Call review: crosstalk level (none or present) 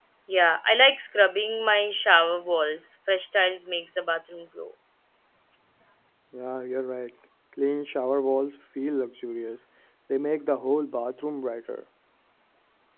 none